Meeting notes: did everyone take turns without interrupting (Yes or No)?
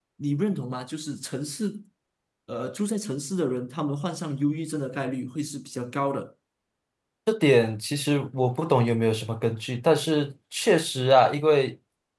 Yes